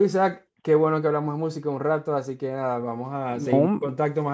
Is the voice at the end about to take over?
No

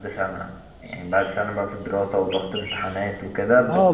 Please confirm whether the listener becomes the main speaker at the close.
Yes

